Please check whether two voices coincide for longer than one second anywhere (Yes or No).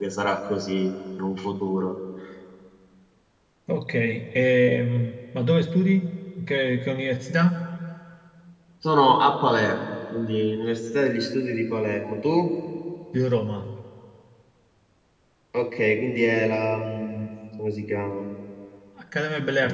No